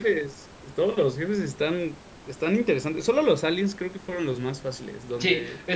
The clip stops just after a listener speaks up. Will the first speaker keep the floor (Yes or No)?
No